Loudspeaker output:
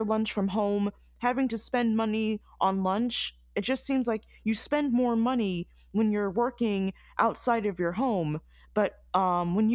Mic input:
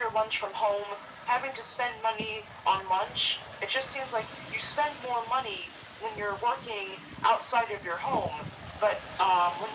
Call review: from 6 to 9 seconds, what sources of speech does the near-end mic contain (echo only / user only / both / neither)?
echo only